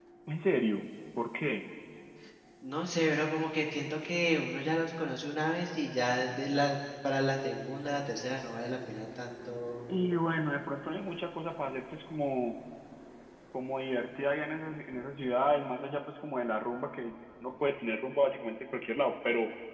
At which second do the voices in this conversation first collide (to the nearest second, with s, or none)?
none